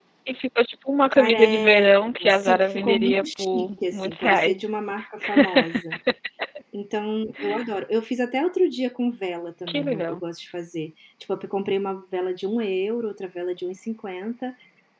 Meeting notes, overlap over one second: present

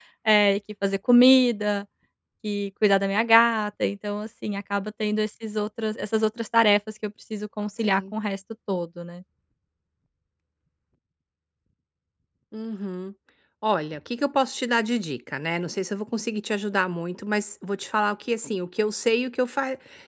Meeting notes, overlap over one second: none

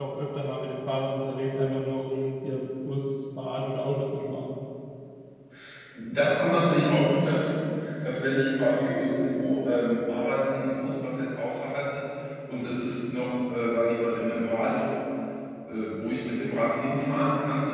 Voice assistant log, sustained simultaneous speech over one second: none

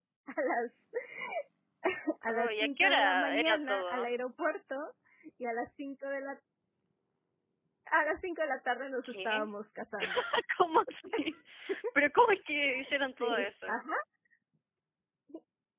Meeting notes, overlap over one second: present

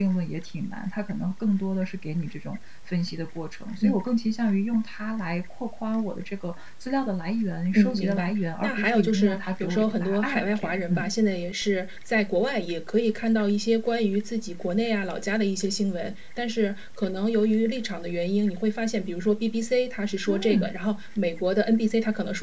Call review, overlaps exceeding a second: present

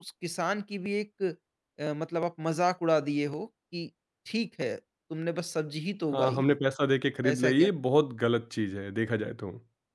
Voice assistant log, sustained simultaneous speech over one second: none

